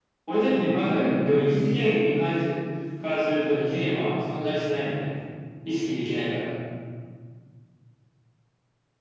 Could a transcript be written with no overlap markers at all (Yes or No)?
No